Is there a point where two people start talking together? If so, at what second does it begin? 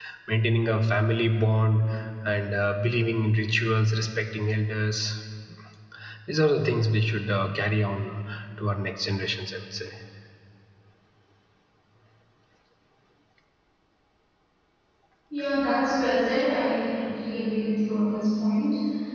none

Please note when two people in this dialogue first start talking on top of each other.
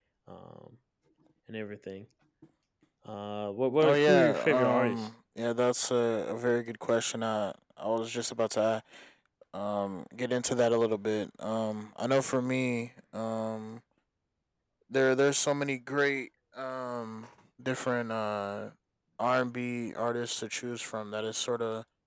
3.8 s

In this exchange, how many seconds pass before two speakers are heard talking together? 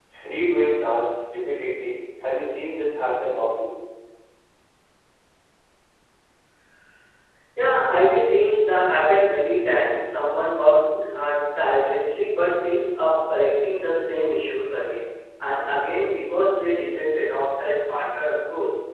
none

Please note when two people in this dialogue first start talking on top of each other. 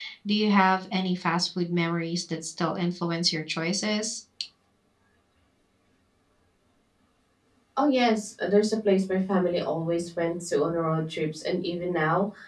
none

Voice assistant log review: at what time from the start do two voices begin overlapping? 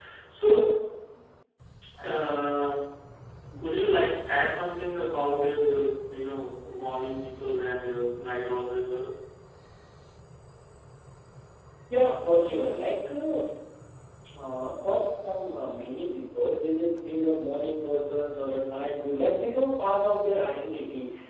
none

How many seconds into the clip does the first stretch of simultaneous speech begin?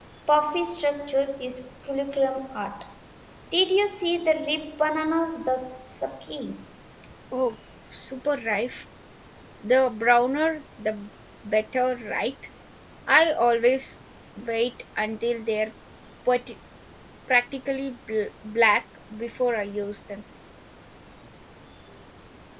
none

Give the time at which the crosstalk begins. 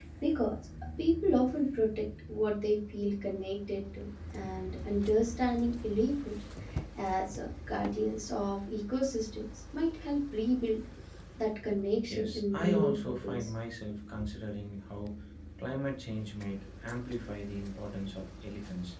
12.1 s

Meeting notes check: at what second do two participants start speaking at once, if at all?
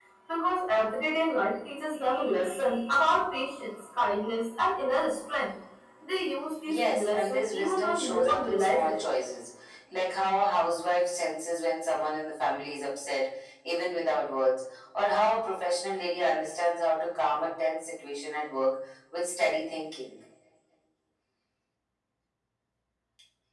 6.7 s

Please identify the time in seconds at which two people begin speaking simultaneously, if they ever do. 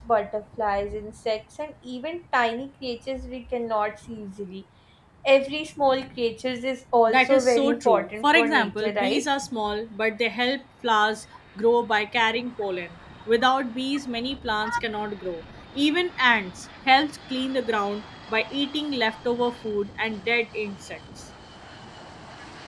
7.1 s

